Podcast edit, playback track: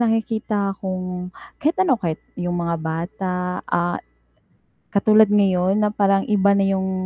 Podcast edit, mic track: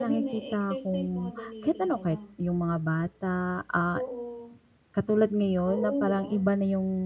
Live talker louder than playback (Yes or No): No